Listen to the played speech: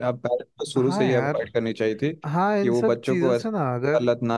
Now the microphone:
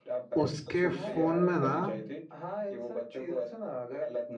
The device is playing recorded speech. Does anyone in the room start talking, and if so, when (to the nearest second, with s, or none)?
0 s